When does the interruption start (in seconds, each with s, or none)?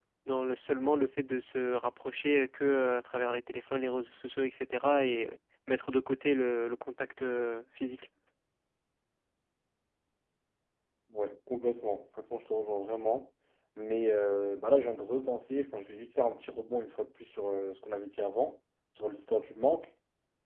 none